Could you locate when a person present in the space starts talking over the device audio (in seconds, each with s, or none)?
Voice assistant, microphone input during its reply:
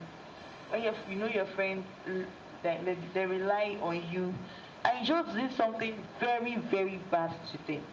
none